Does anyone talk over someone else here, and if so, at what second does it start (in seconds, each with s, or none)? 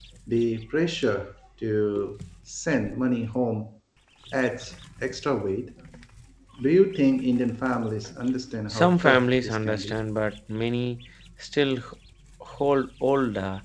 8.7 s